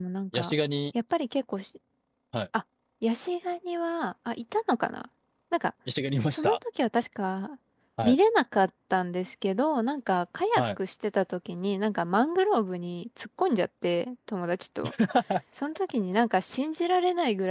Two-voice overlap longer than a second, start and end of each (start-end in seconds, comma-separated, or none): none